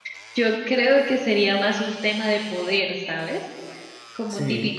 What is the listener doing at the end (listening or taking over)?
listening